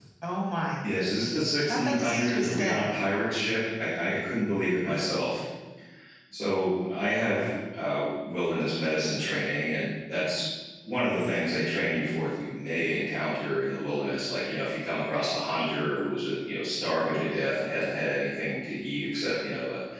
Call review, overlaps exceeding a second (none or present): present